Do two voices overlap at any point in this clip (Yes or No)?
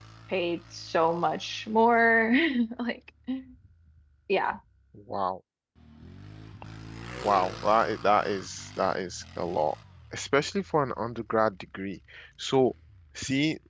No